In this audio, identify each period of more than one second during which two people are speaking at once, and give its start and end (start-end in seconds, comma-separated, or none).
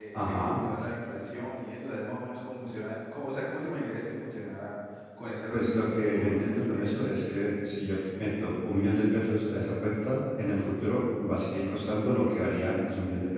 5.5-7.2